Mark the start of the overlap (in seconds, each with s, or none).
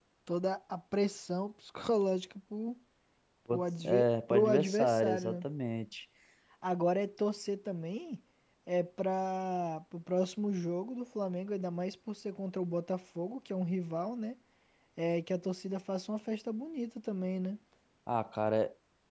3.5 s